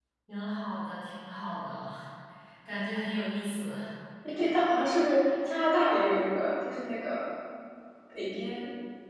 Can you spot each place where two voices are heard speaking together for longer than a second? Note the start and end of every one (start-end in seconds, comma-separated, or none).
none